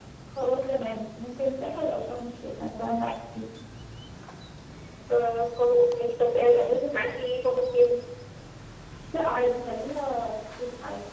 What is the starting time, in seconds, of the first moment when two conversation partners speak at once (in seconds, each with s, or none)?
none